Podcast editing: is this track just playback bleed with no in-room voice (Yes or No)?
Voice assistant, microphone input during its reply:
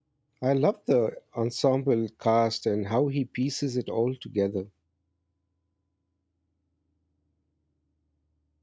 No